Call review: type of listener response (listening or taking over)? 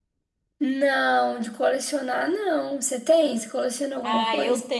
taking over